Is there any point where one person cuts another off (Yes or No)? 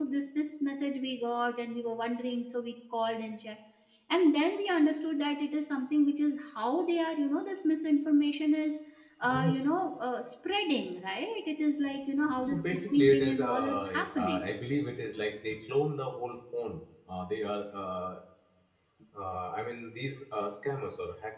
Yes